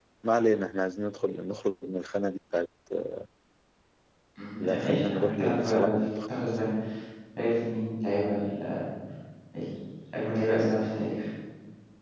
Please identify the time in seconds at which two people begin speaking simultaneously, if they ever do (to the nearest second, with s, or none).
5 s